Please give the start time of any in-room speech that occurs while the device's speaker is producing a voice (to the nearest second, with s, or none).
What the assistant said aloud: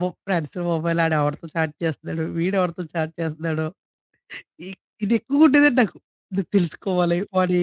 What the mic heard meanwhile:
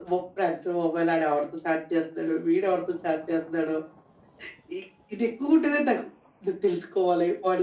none